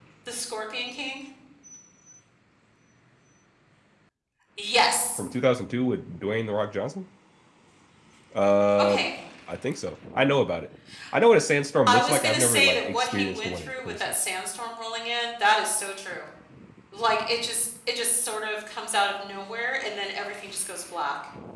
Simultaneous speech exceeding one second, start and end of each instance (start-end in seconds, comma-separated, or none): 11.9-14.1